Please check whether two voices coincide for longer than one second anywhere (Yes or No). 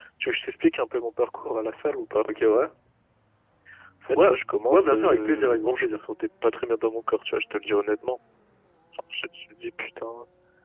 Yes